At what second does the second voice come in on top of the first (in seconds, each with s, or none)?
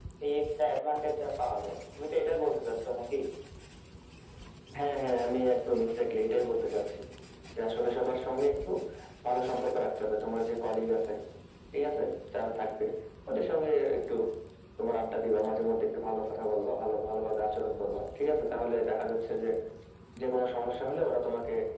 none